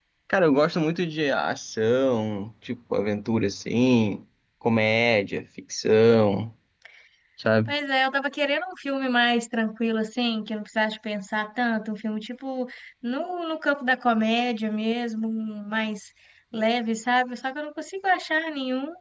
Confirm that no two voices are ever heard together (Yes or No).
Yes